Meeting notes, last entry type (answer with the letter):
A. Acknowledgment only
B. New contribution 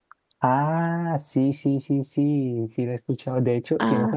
A